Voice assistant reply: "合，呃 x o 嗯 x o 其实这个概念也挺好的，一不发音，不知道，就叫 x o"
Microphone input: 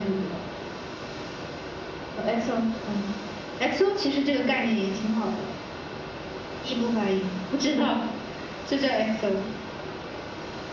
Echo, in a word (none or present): present